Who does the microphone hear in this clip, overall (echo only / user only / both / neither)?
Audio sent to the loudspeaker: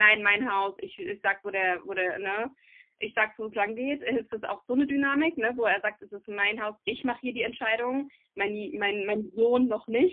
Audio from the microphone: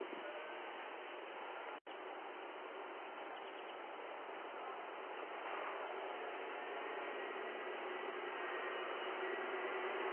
neither